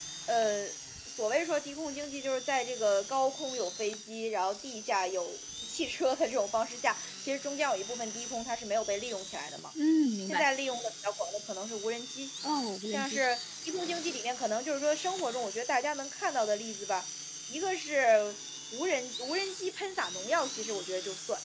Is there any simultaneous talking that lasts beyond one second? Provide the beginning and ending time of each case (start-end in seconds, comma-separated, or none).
none